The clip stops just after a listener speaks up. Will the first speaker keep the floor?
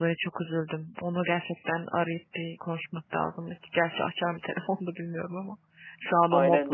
No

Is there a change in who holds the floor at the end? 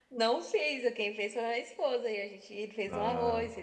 No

